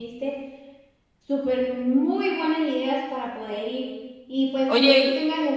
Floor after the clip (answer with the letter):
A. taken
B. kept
B